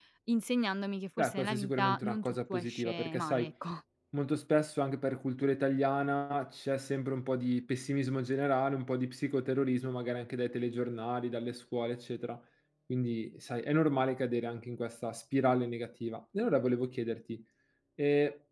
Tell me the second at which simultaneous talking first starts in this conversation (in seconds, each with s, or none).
1.2 s